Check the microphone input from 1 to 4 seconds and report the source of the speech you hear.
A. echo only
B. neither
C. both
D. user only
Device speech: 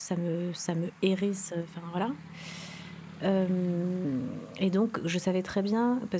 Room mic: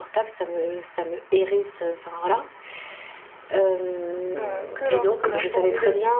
A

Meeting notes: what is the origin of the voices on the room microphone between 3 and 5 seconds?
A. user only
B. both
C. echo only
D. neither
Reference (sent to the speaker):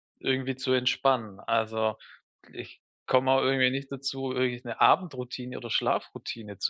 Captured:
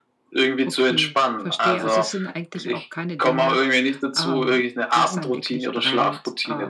B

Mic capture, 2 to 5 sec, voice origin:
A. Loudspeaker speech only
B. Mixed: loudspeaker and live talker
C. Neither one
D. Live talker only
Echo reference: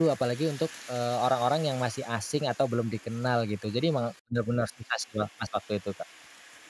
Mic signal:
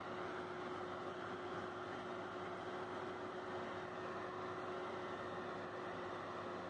C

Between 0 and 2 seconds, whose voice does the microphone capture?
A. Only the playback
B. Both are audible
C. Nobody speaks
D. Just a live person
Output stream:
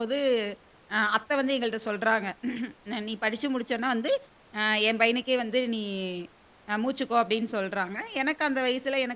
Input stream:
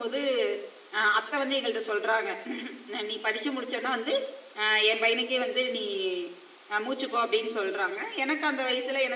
A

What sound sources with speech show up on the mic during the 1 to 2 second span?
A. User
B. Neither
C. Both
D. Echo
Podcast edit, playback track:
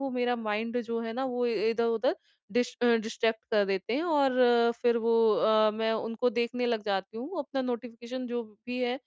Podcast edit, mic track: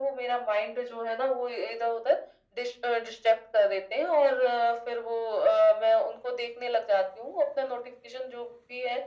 D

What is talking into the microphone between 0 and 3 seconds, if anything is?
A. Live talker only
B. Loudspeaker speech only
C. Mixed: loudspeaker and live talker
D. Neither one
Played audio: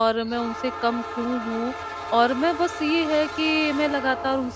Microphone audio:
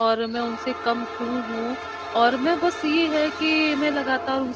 B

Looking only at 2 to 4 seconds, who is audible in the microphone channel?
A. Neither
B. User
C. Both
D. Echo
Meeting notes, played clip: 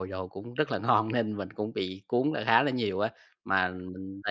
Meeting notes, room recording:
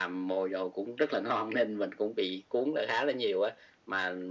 D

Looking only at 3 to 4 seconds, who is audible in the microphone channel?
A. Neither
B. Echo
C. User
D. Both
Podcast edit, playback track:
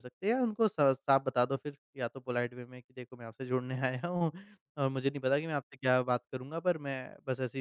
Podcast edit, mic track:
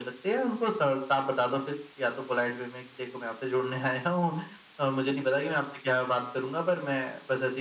B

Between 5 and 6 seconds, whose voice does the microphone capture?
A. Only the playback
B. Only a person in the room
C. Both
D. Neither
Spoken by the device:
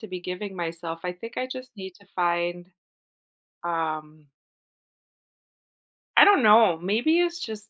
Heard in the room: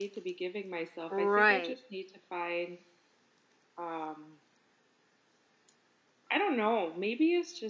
D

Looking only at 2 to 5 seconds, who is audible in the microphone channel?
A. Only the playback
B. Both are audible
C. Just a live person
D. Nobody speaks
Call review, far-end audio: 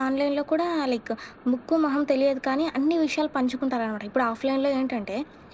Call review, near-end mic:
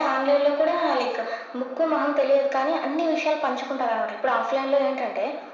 A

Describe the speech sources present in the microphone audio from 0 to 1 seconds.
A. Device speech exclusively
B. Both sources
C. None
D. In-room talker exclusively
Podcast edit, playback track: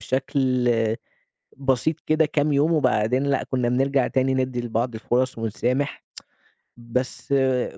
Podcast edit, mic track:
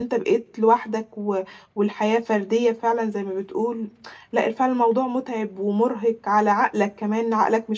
D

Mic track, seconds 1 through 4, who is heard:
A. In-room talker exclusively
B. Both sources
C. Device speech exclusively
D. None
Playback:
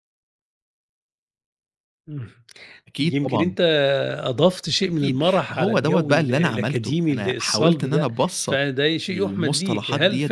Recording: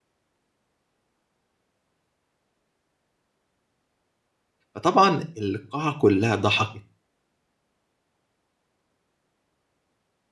D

